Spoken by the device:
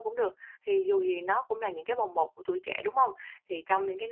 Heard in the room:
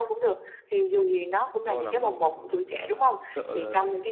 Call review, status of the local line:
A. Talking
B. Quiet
A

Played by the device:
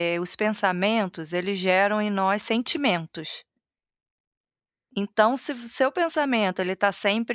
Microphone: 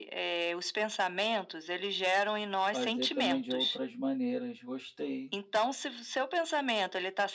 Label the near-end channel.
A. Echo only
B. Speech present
B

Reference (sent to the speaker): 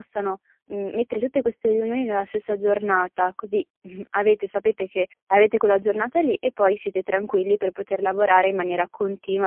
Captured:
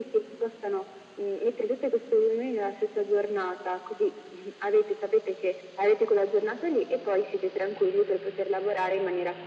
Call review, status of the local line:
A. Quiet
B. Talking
A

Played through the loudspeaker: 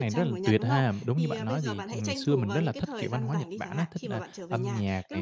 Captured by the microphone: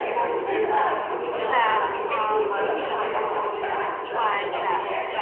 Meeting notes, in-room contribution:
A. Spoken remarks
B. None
A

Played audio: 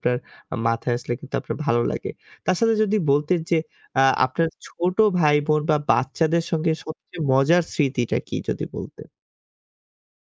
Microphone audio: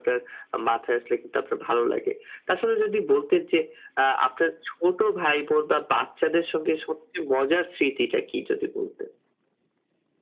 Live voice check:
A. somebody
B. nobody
B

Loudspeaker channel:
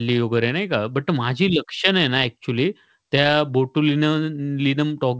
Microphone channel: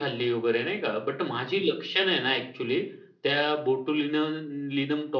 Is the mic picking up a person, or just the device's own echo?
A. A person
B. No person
B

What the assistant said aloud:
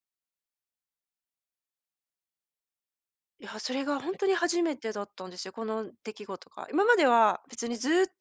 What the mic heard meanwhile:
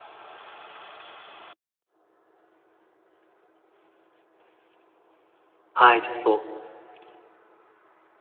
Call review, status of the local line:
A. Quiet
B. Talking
B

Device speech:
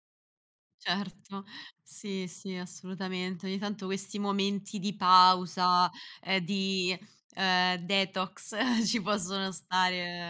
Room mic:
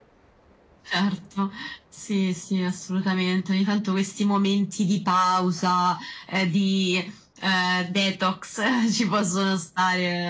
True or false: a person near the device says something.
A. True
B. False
B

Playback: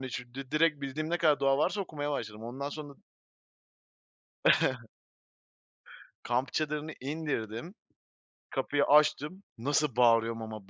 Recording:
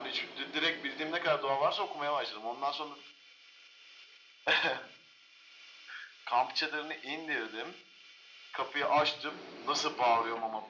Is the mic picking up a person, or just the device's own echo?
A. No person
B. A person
A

